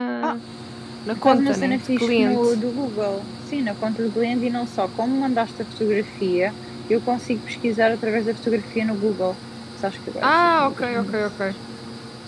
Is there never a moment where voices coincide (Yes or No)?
No